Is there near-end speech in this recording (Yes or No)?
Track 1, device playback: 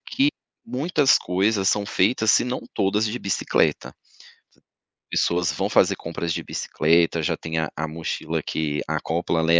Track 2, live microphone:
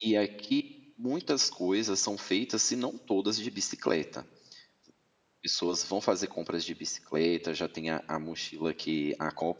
No